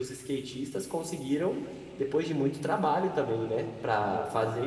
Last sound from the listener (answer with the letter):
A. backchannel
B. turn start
A